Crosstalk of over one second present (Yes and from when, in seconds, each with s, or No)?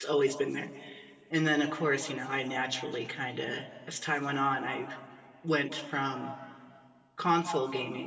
No